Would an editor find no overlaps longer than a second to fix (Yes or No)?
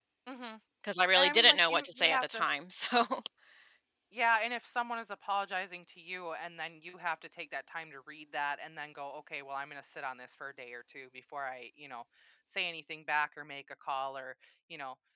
No